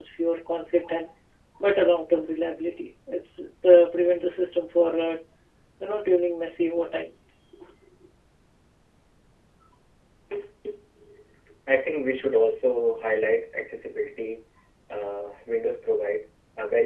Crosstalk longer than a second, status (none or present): none